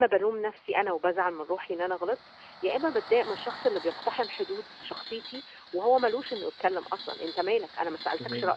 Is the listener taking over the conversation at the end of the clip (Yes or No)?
Yes